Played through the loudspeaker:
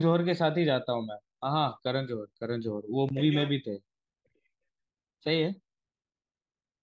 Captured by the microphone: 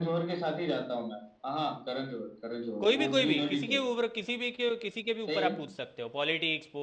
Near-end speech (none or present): present